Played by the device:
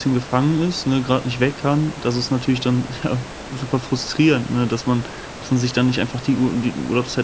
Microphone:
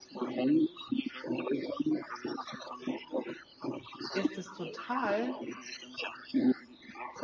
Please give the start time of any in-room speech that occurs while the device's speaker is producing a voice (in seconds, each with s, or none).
4.1 s